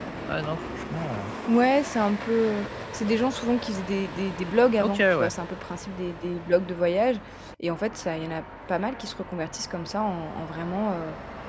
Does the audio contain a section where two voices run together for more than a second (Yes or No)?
No